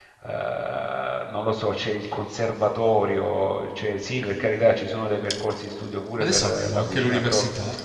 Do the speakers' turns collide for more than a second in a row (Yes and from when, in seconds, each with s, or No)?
Yes, from 6.2 s